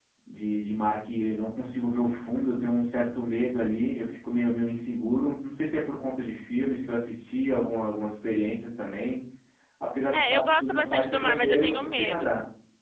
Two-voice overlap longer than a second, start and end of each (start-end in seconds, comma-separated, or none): 10.1-12.3